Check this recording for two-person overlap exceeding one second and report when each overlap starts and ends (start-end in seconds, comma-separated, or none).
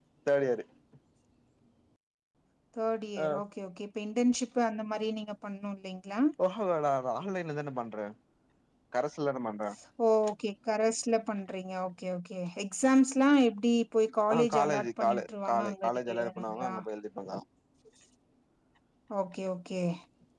14.3-16.8